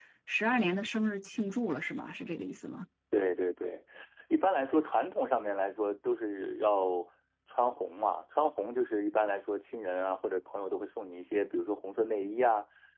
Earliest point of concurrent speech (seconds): none

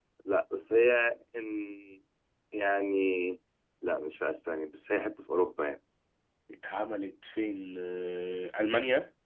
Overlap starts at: none

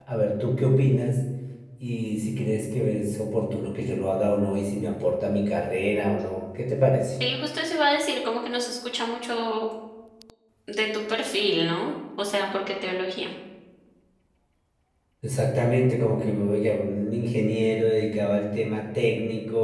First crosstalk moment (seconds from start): none

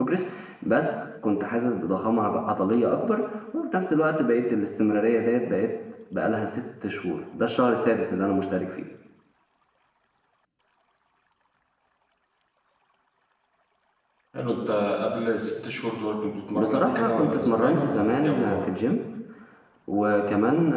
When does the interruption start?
16.5 s

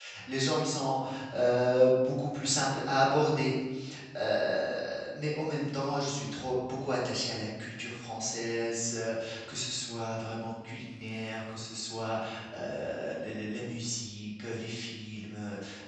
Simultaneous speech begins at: none

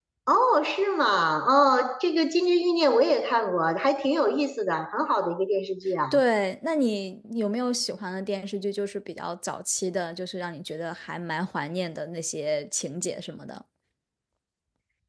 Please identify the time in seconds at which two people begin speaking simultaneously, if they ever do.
none

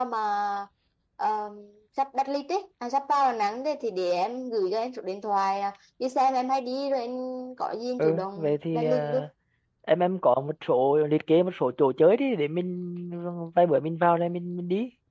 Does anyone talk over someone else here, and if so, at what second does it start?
8.0 s

